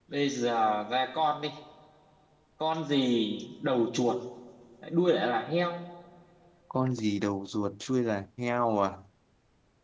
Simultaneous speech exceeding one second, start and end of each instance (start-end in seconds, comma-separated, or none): none